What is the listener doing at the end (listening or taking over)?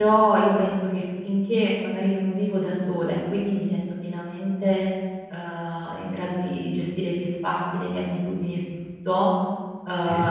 listening